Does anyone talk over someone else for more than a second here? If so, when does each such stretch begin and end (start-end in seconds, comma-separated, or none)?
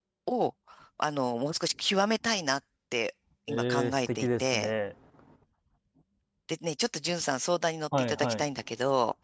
3.5-4.7